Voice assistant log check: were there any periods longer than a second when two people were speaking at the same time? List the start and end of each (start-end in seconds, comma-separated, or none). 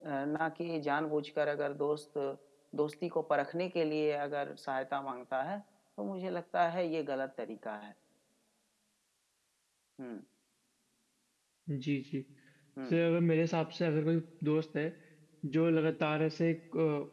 none